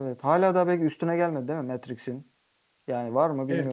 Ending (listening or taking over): taking over